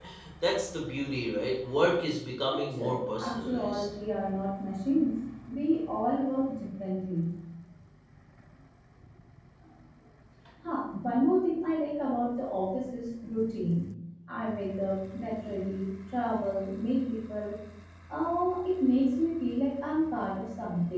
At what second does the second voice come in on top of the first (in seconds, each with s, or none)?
2.5 s